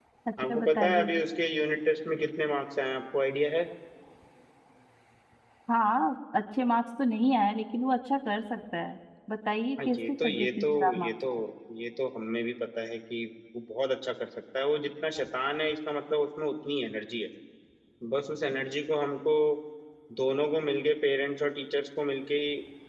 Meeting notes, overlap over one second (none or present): present